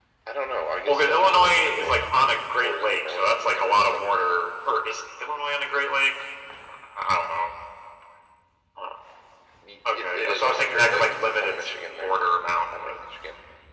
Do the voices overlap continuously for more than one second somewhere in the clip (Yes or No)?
Yes